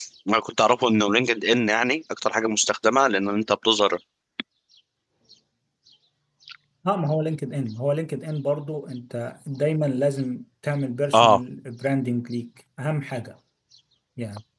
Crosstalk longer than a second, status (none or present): none